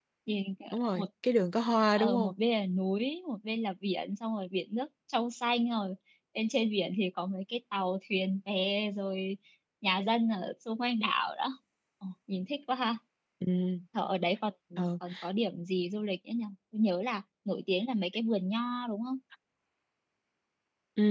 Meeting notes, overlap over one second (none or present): none